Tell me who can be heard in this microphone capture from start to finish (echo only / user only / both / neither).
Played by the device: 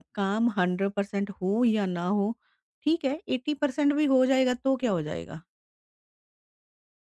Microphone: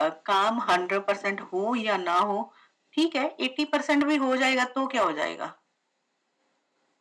echo only